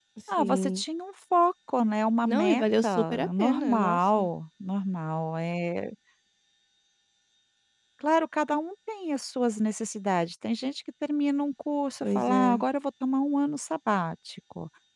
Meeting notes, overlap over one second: present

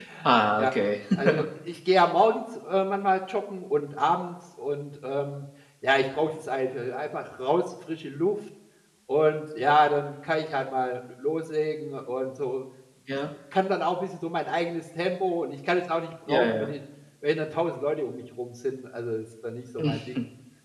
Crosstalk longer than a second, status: none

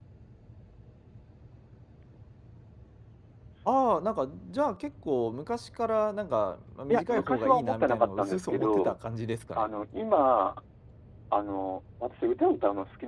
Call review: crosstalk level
present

